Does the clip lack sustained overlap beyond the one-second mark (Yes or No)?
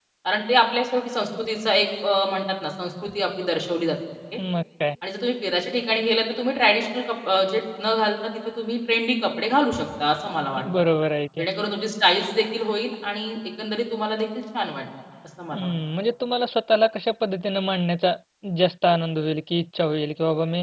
Yes